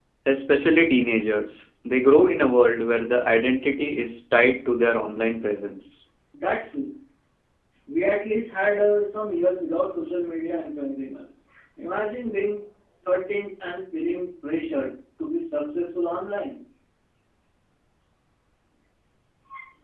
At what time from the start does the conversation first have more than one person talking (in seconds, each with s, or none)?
none